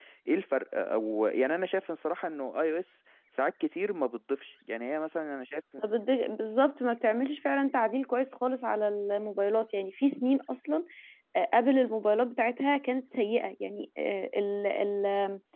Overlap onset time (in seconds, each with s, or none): none